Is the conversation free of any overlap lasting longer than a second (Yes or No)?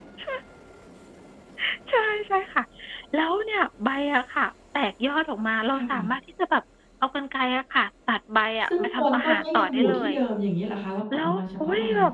No